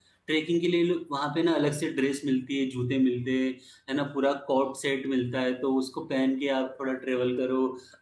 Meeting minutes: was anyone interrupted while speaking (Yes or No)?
No